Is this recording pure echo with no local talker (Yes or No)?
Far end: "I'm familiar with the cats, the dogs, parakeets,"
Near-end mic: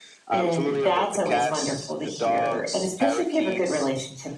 No